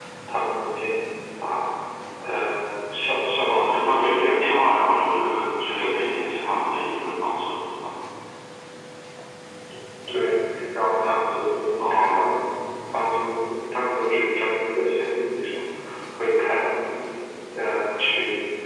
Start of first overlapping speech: 3.5 s

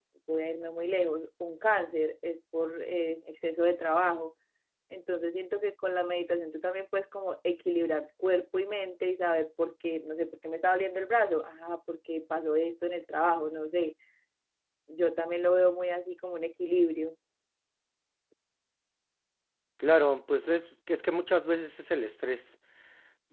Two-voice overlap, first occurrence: none

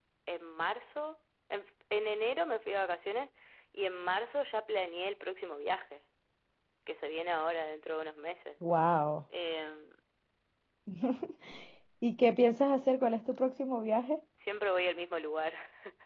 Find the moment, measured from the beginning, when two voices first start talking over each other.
none

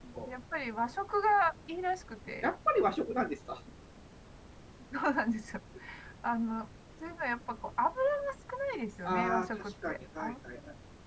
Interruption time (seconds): 9.0 s

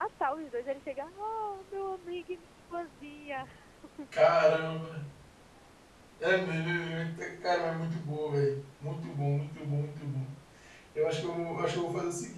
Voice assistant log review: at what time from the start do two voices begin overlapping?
none

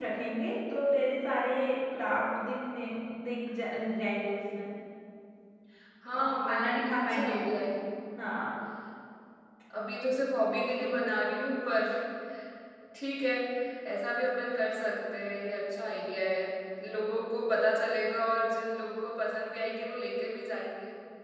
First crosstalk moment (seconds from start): 6.2 s

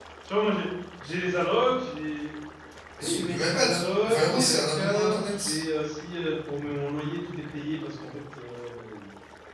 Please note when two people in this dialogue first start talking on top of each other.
3.0 s

